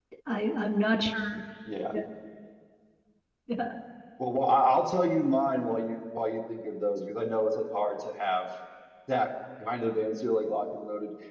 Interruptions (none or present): none